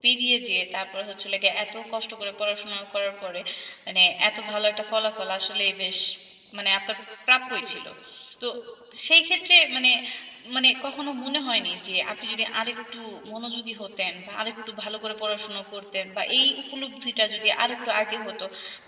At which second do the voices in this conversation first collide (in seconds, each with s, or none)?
none